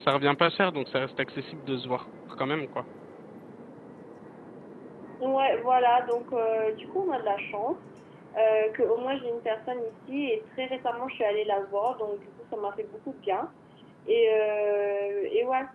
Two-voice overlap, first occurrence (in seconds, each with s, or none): none